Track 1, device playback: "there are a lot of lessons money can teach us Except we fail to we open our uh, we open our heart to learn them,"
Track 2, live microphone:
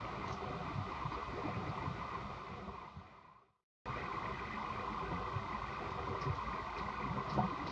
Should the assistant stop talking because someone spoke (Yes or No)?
No